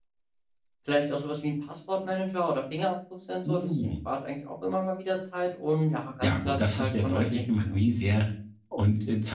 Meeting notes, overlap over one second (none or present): present